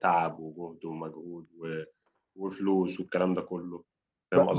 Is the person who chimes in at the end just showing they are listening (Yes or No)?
No